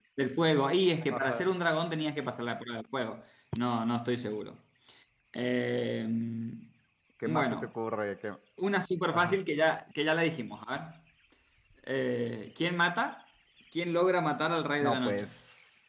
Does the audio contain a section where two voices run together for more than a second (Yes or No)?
No